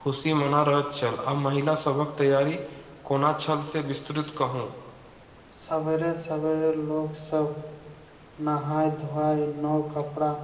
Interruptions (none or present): none